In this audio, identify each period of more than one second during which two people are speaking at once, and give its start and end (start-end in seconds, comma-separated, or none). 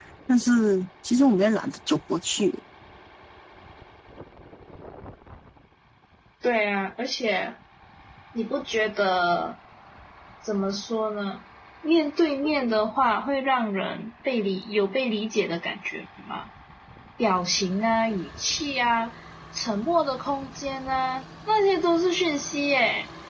none